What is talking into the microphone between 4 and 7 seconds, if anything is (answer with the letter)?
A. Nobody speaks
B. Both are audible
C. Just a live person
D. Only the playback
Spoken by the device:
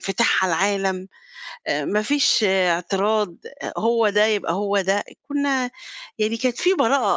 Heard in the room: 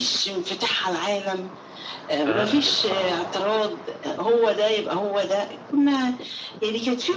D